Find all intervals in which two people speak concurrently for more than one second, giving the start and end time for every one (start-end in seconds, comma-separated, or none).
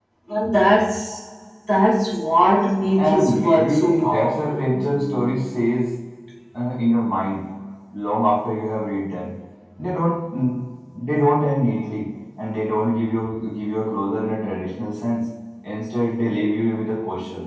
3.0-4.6